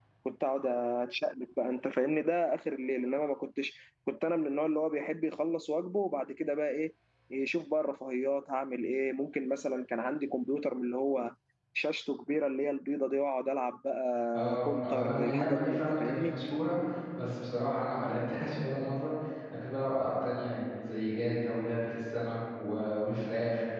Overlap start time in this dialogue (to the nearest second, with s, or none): 14 s